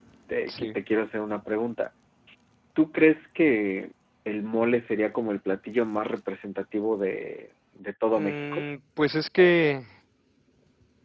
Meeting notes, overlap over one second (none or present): none